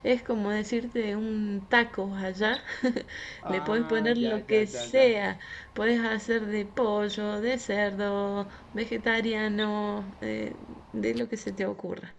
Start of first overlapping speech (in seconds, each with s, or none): 3.5 s